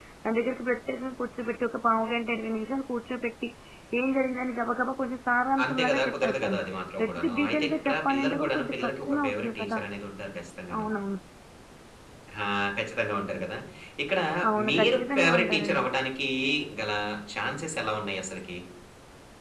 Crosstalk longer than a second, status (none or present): present